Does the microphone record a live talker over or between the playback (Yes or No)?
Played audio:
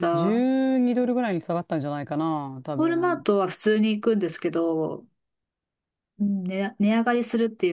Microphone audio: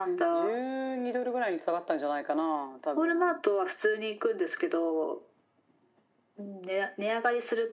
No